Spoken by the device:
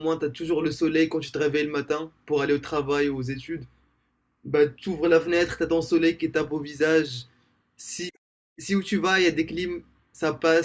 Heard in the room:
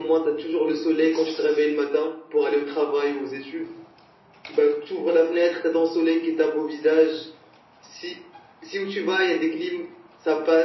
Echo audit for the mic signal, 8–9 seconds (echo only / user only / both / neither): echo only